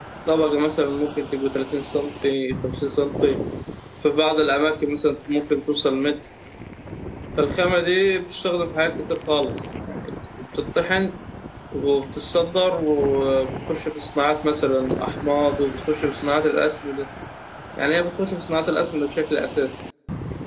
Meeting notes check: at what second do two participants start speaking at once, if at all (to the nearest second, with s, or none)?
none